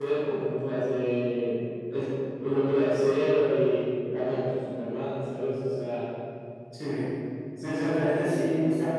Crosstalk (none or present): present